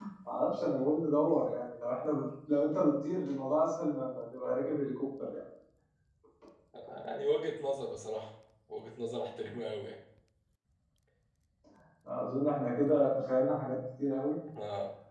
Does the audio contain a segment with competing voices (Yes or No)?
No